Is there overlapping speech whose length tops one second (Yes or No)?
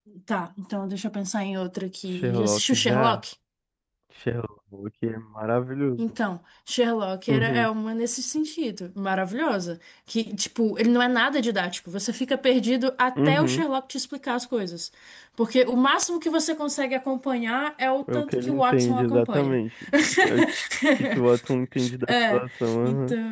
Yes